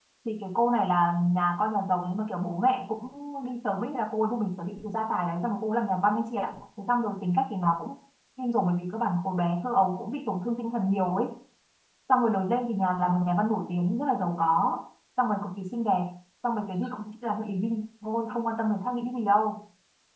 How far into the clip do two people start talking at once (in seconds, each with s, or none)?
none